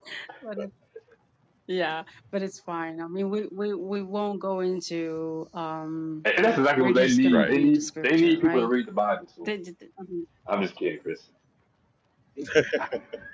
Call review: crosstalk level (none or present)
present